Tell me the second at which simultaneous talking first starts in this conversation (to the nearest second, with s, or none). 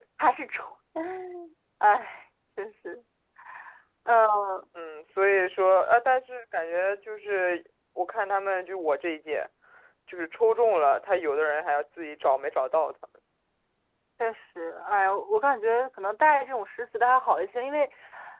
none